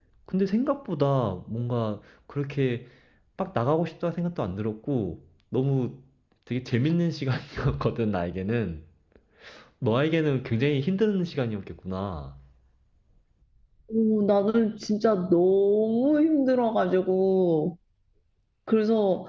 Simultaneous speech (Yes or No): No